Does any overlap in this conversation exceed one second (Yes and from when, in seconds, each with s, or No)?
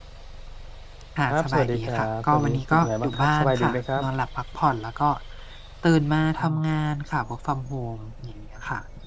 Yes, from 1.3 s